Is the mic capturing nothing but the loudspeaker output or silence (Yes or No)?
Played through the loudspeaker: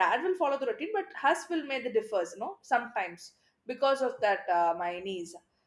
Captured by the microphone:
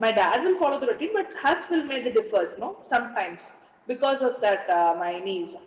Yes